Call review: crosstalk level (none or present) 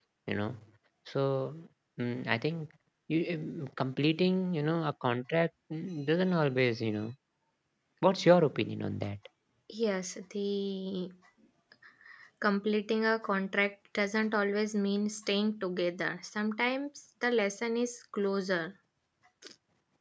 none